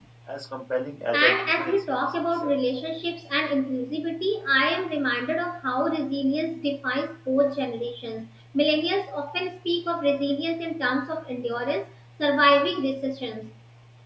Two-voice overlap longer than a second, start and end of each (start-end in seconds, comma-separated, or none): 1.1-2.5